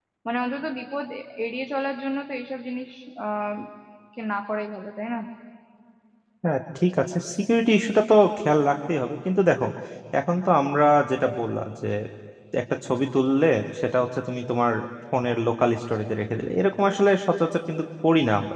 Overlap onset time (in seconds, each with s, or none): none